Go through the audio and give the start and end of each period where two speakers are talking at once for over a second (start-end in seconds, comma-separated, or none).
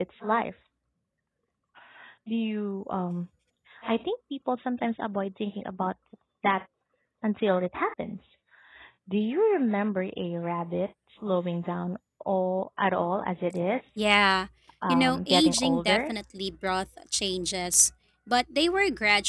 14.9-16.1